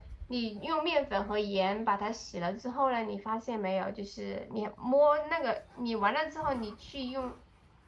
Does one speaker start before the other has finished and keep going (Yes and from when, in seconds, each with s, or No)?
No